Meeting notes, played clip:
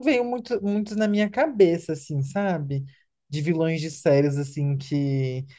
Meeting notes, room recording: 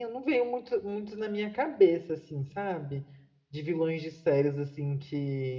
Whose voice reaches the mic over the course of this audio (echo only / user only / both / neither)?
echo only